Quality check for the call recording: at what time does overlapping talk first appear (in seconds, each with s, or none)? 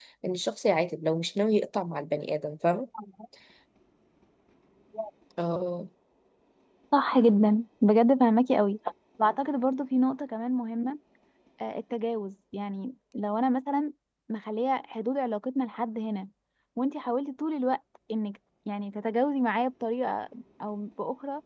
none